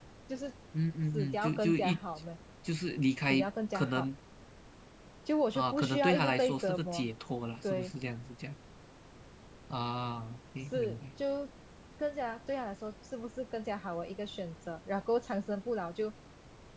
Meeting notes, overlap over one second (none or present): present